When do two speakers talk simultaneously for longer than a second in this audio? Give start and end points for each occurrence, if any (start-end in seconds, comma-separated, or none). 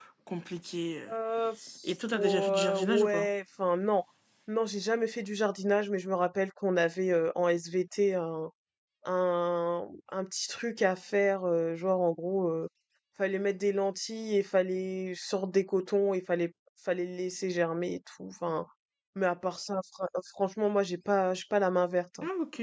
1.9-3.3